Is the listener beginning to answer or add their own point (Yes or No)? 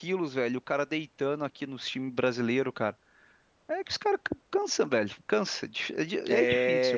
Yes